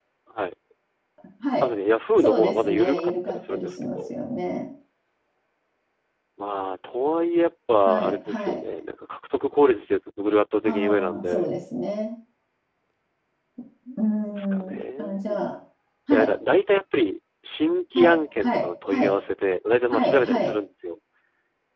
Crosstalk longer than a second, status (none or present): present